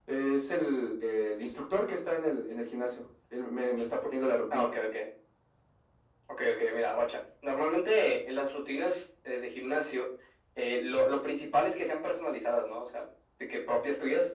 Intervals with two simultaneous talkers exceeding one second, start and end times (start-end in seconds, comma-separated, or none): none